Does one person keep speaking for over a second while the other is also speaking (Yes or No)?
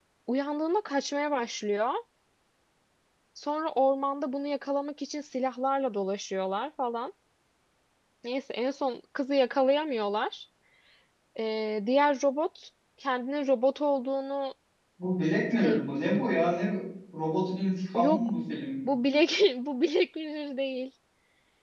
No